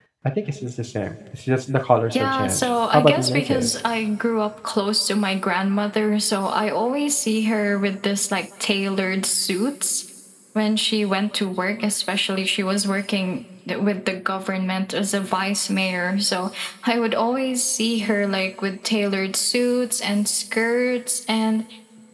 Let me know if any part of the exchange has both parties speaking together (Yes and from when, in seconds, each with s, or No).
Yes, from 2.1 s